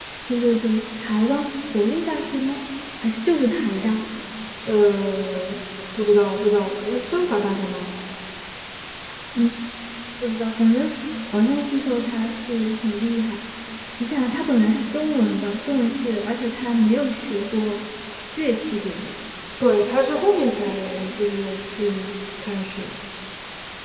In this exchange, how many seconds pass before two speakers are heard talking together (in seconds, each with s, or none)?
none